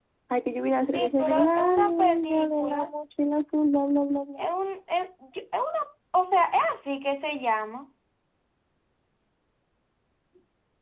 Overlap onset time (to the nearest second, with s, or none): 1 s